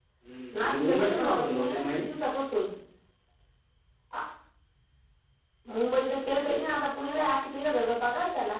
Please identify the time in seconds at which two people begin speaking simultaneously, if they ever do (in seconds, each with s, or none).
0.5 s